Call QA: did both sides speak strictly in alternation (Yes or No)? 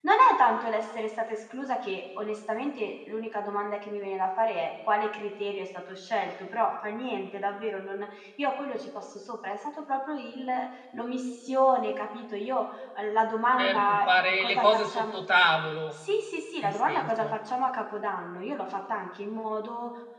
No